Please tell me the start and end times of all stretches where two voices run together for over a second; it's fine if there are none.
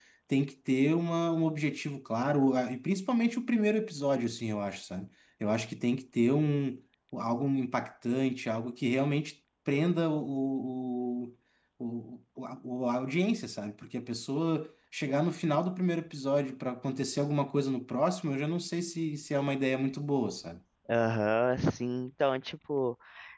none

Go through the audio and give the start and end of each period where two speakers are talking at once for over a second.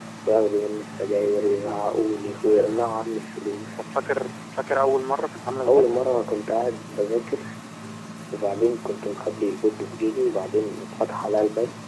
none

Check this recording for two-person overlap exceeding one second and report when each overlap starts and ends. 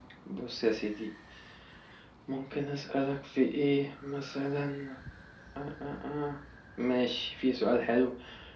none

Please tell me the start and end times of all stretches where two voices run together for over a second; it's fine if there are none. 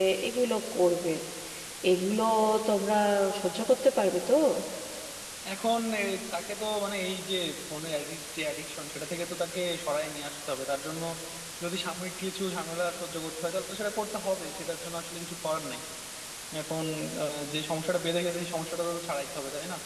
none

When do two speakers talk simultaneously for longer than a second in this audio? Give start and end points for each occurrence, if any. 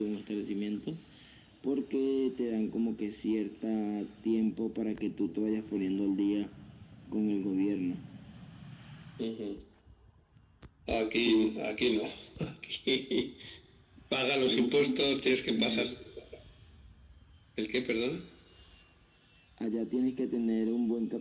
14.4-15.9

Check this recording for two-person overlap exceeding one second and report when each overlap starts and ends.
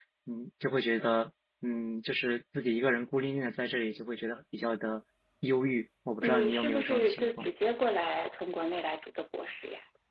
6.2-7.5

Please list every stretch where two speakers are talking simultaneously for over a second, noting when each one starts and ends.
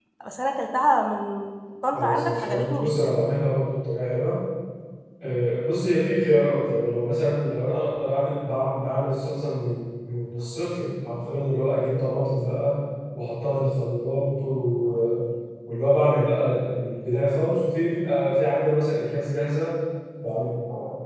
1.9-3.1

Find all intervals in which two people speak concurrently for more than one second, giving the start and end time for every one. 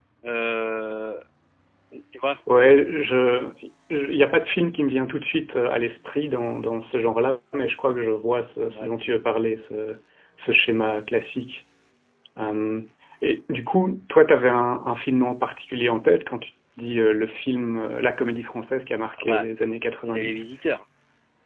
none

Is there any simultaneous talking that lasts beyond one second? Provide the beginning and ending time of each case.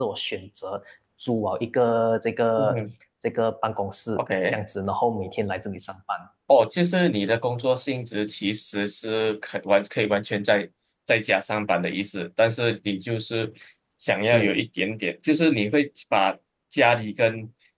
none

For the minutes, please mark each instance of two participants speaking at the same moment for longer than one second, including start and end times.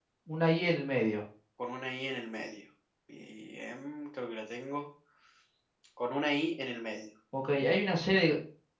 none

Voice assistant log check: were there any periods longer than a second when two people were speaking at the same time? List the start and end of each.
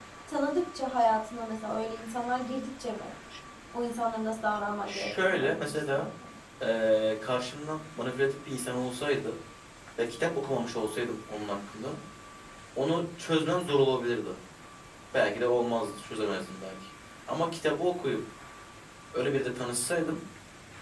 4.9-6.1

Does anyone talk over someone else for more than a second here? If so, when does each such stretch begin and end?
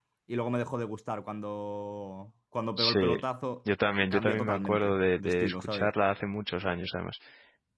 4.1-5.9

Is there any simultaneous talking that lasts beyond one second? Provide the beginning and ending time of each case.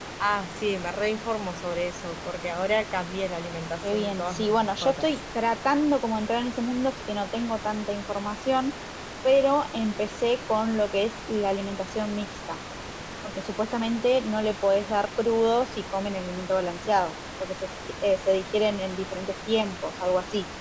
3.8-5.1

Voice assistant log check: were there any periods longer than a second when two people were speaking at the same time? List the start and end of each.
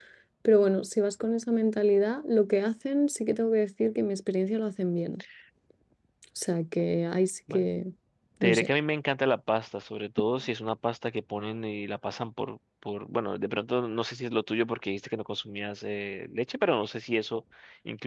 none

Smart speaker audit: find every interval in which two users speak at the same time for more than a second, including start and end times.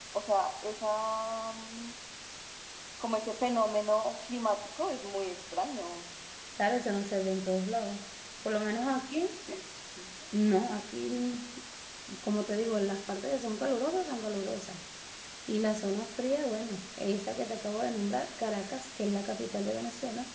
none

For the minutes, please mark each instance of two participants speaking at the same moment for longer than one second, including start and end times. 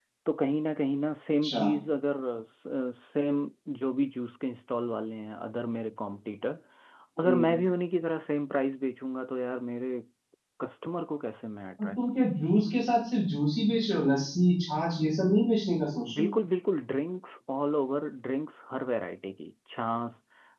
none

